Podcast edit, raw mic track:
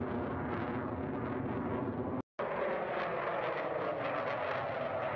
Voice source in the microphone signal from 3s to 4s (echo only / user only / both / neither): neither